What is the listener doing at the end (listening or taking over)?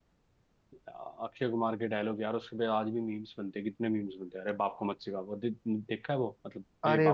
taking over